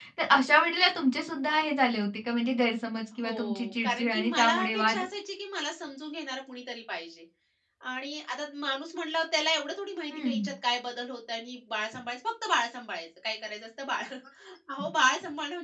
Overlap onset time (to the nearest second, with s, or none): 3 s